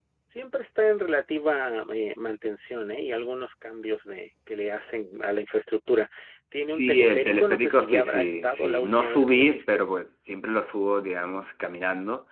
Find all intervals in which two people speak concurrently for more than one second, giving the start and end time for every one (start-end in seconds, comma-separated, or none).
6.7-9.8